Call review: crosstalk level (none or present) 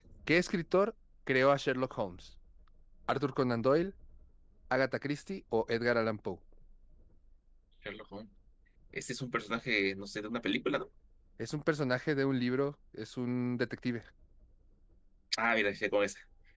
none